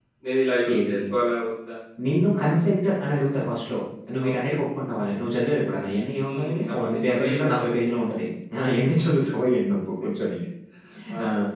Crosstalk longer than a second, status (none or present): present